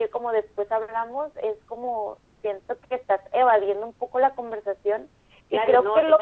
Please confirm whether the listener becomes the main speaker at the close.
Yes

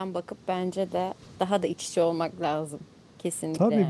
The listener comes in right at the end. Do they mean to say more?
Yes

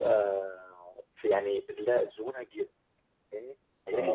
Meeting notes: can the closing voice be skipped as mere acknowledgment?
Yes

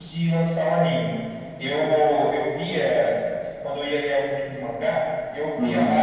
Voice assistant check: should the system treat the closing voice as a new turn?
No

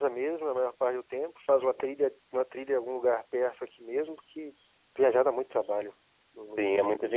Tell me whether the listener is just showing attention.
No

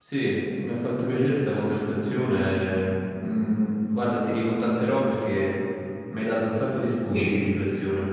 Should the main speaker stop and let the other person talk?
Yes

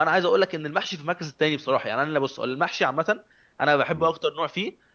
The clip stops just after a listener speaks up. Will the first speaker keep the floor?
Yes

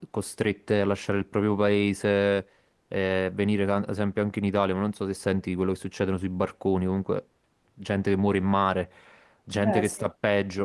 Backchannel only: Yes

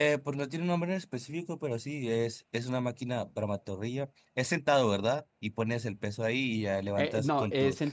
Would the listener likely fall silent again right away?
No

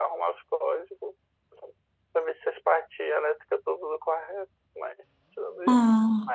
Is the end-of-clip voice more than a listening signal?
No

